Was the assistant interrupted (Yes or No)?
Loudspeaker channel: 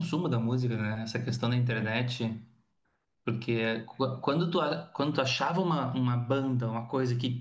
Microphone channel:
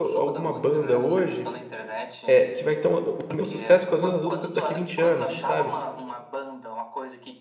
Yes